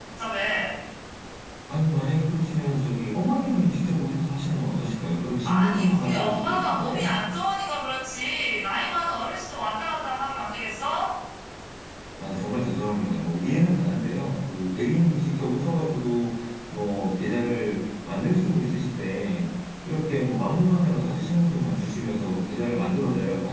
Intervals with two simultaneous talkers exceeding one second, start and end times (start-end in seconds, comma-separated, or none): 5.4-7.1